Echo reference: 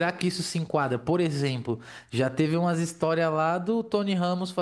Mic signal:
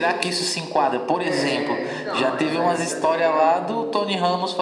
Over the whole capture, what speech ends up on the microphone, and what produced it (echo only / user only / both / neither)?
both